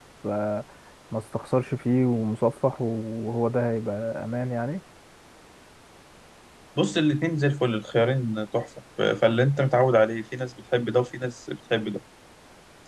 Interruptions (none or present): none